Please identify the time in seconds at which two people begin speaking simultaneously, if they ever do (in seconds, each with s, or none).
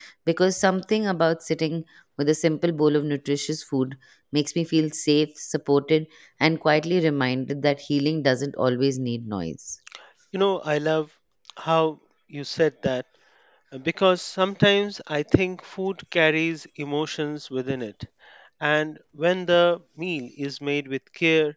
none